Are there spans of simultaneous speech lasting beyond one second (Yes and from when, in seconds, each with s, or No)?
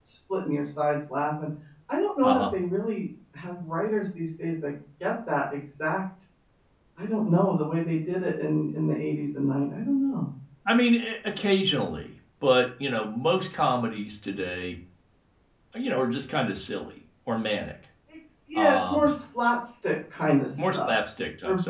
No